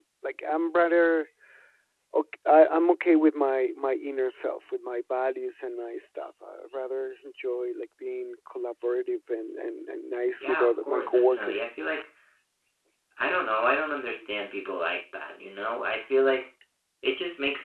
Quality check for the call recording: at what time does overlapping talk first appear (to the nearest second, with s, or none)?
10 s